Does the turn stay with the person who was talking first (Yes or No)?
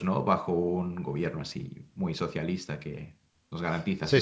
No